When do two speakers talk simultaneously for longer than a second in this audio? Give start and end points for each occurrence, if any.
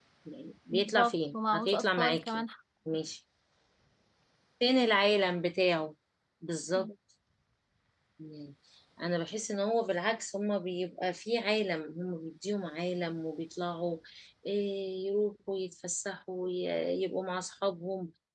0.7-2.4

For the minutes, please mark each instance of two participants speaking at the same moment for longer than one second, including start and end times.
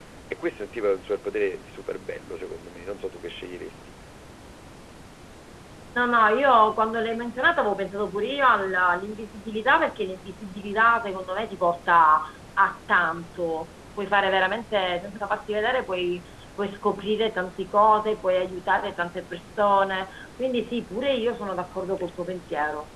none

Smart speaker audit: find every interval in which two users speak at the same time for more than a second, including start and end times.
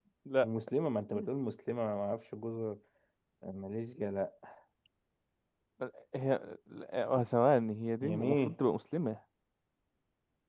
none

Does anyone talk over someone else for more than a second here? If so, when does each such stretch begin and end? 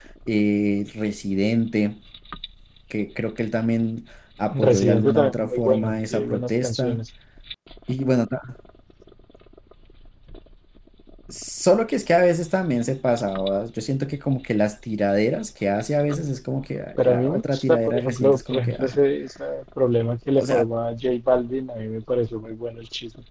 4.5-7.0, 17.1-18.9

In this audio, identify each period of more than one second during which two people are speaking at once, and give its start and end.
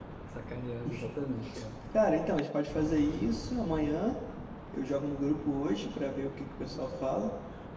none

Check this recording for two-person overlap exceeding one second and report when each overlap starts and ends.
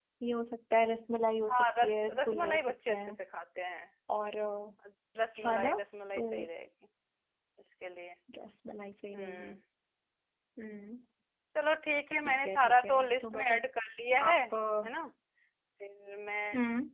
1.5-3.1, 12.2-13.6

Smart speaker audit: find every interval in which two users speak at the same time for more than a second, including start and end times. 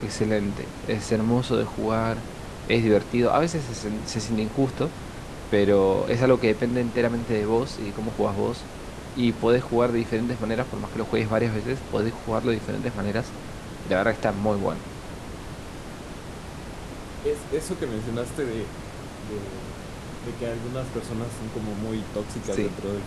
none

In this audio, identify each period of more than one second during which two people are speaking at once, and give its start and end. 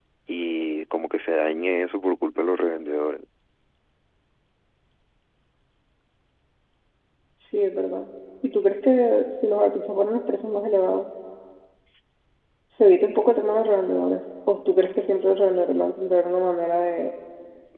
none

